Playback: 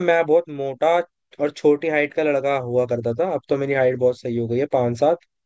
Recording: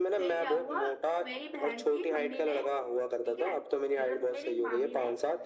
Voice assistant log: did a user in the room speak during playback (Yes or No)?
Yes